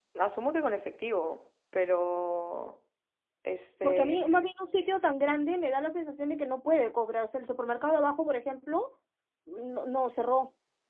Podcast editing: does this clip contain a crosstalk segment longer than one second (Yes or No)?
No